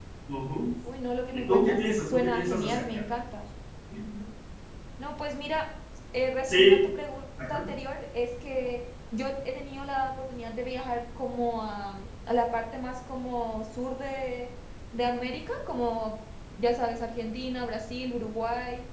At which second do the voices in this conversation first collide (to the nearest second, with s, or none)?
1 s